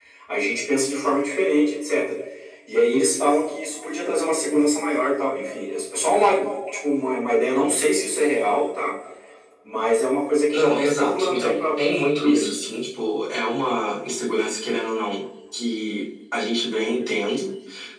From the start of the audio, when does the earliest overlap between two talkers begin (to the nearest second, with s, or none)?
11 s